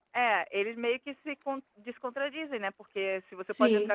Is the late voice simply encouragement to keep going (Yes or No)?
Yes